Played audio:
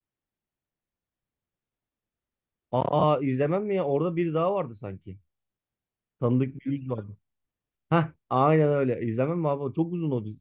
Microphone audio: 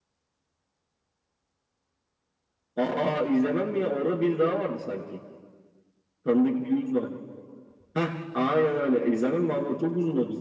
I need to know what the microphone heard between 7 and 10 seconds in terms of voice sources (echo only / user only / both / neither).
echo only